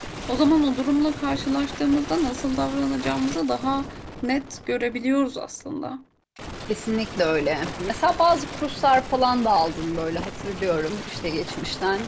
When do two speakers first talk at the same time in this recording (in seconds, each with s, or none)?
none